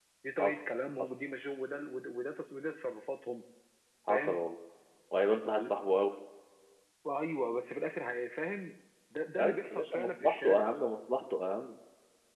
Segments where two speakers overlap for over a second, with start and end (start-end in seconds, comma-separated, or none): 9.4-10.7